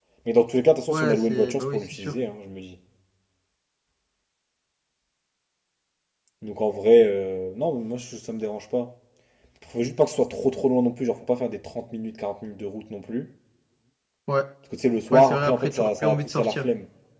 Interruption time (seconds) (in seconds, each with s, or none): 0.9 s